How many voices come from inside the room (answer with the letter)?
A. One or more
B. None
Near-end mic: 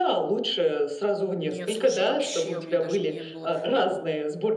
A